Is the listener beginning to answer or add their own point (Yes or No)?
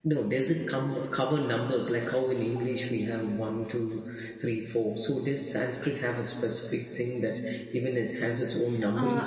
Yes